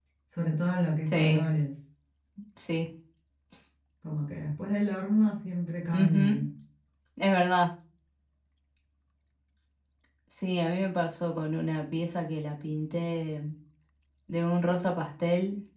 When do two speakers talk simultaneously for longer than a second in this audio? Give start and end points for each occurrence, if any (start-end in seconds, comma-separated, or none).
none